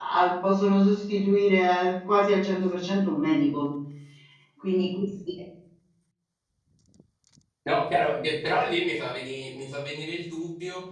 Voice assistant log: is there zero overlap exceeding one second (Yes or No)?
Yes